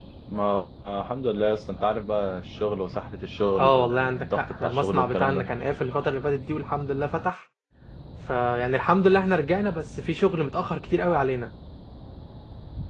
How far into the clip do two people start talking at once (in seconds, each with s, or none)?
3.6 s